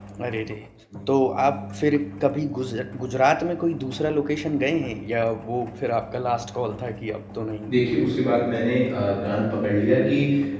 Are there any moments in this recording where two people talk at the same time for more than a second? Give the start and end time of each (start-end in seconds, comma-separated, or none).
none